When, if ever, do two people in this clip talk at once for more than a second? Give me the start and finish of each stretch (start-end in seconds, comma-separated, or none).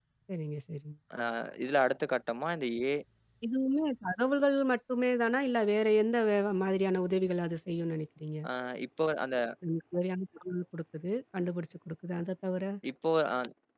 none